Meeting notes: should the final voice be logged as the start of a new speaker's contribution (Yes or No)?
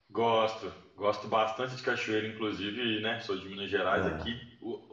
No